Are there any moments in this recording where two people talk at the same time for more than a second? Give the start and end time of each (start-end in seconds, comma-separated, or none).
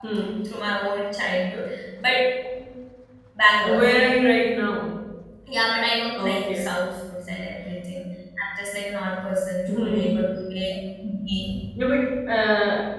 none